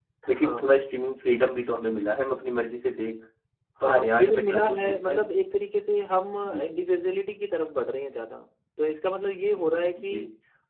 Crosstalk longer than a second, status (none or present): present